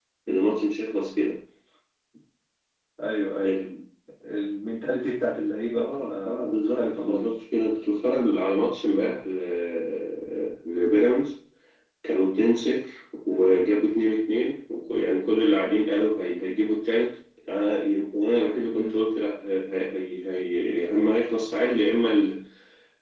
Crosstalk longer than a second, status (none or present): present